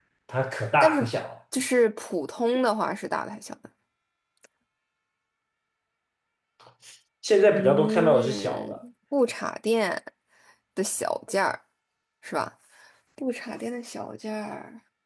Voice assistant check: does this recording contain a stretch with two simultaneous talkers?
Yes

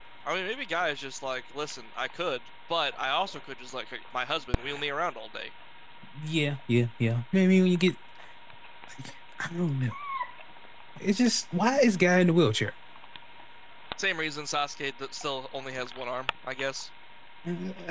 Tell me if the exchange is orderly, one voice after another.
Yes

